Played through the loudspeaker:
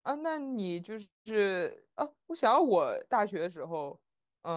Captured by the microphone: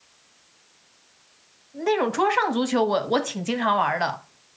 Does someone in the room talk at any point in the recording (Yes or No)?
Yes